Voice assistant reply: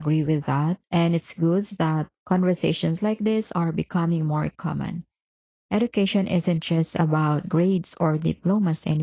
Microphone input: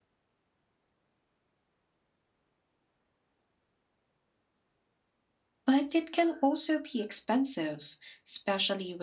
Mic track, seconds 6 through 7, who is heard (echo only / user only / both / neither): user only